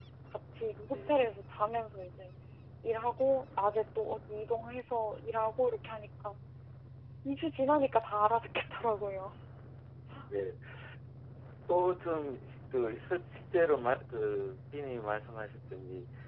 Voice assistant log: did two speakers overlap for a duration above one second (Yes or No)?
No